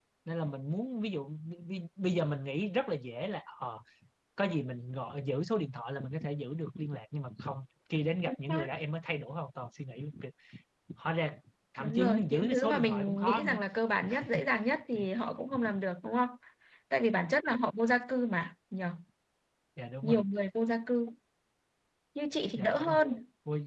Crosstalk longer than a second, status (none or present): present